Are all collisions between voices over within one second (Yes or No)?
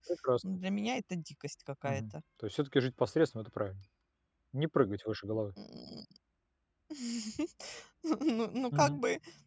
Yes